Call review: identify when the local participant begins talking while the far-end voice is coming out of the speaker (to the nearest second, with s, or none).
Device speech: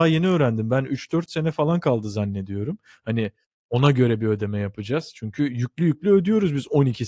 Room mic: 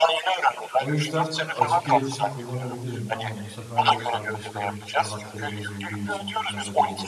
1 s